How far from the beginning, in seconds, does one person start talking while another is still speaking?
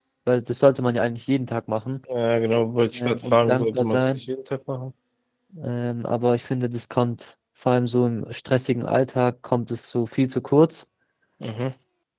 3.0 s

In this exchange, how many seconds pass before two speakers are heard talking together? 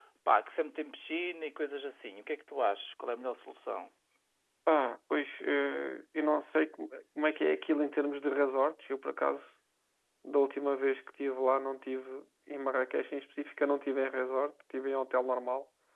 none

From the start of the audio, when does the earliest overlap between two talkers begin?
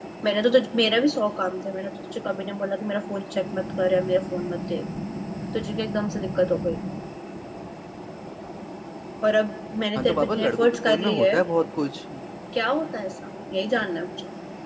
10.0 s

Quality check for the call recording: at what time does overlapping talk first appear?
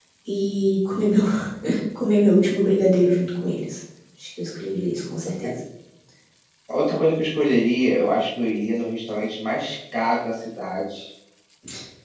none

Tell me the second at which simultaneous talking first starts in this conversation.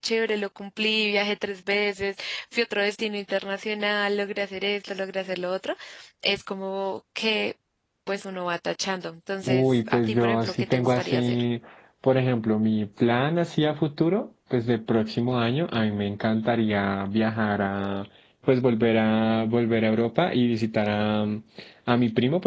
9.5 s

